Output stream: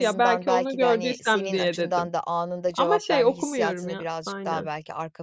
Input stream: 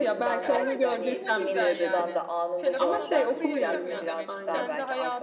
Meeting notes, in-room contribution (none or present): present